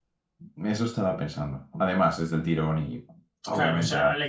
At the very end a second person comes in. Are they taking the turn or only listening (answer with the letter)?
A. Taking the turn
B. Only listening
A